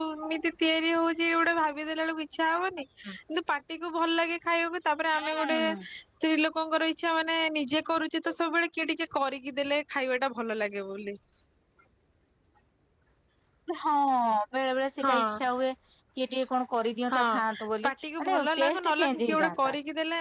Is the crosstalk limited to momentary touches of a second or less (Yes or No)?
No